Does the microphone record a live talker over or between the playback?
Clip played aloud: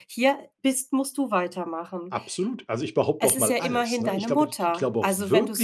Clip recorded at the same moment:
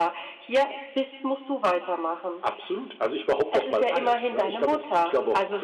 No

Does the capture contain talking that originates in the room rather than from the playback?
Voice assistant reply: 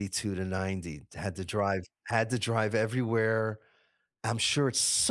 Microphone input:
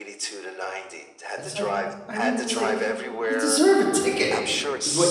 Yes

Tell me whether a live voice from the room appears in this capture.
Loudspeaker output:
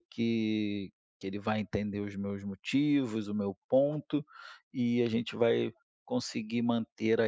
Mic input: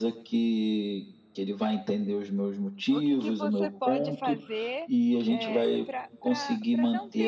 Yes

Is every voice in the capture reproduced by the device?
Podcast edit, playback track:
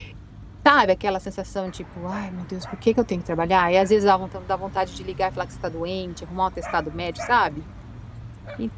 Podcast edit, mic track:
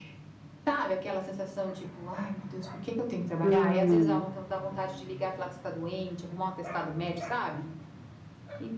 No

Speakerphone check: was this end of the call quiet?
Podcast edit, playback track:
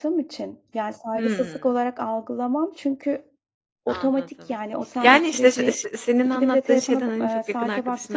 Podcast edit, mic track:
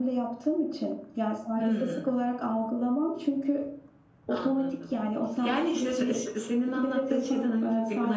Yes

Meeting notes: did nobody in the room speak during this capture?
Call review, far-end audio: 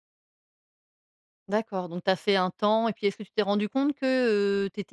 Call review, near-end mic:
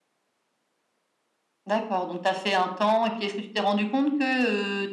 Yes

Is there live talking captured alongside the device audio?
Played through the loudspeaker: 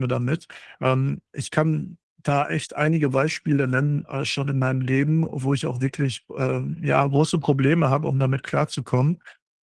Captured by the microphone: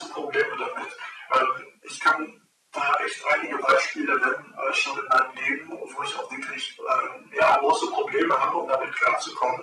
No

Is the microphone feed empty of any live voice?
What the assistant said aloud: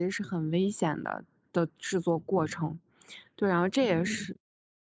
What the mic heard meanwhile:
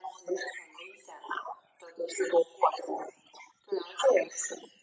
Yes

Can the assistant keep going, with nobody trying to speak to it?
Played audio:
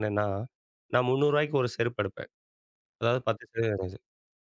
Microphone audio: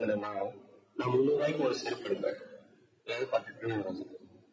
No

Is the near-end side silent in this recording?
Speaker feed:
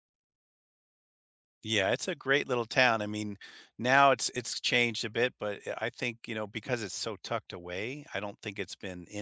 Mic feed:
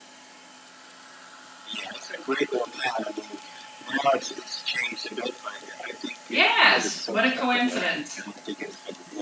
No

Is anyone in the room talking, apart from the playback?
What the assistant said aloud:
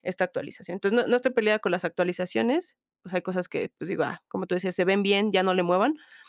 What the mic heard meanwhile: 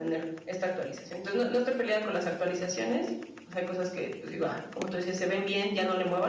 No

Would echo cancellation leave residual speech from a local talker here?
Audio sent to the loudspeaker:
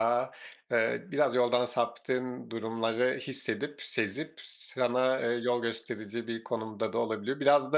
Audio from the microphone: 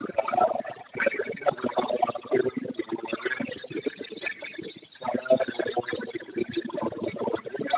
No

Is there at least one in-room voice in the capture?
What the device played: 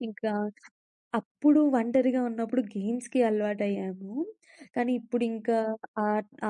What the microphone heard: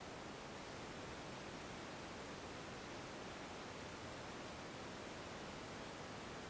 No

